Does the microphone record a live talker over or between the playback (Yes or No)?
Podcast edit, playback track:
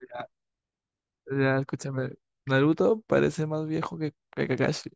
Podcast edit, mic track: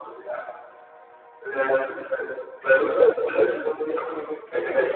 No